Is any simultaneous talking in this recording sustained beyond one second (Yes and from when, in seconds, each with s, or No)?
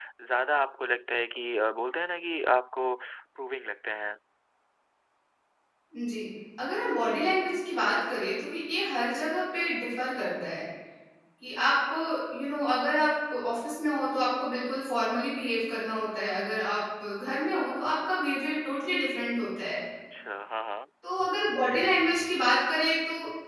No